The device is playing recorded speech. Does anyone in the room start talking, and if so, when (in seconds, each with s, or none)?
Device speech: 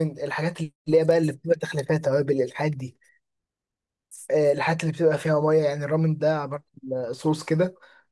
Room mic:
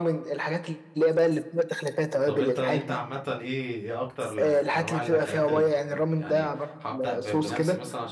2.2 s